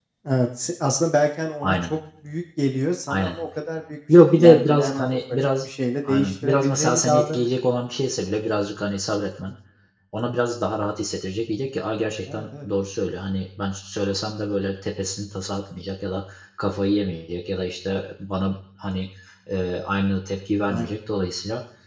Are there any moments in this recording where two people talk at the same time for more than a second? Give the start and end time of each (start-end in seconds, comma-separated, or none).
4.1-5.7, 6.1-7.5